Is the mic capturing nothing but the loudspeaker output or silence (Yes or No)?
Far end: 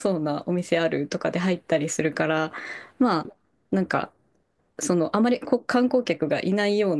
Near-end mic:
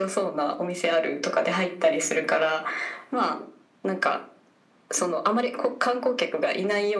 Yes